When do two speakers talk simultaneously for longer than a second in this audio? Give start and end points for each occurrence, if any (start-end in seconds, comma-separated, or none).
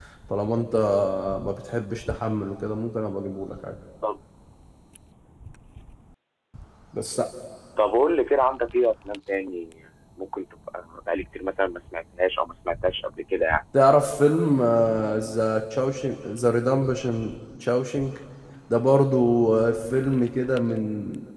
none